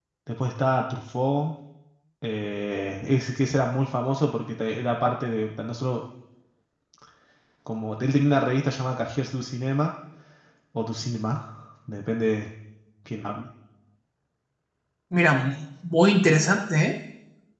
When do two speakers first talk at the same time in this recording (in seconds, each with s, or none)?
none